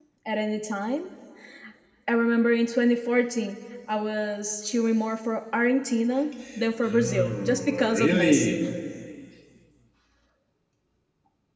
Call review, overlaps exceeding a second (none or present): present